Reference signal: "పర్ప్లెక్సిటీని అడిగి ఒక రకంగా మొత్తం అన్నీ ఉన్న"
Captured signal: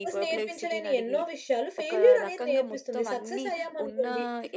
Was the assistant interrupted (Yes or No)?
Yes